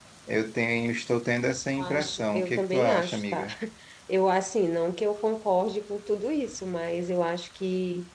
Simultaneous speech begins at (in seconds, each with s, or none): 1.8 s